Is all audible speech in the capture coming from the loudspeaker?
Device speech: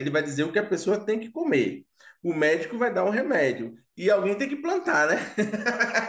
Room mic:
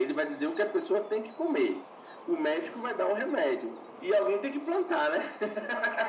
Yes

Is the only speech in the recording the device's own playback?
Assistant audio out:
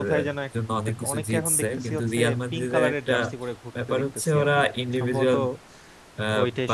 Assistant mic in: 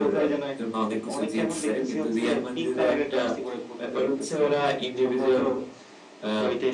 Yes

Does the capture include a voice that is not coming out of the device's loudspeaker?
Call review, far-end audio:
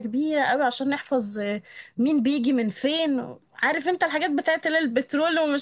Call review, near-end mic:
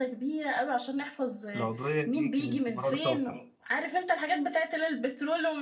Yes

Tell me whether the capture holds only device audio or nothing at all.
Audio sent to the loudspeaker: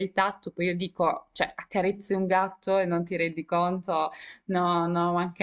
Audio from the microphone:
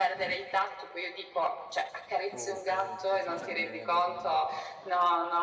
No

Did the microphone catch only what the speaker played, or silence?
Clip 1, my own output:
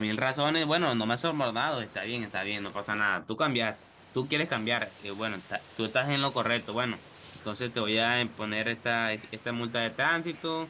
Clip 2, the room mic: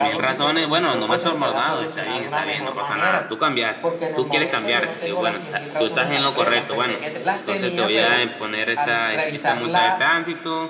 No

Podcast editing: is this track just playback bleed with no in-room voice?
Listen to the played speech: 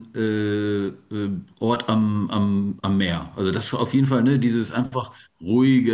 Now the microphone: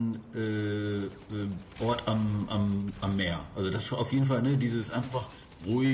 Yes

